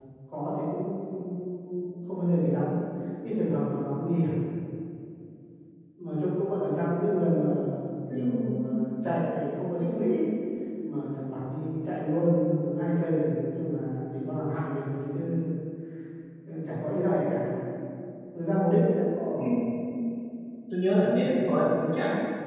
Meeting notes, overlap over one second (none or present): none